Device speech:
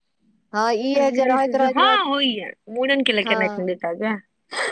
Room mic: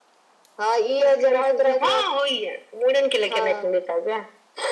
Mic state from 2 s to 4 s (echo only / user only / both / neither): echo only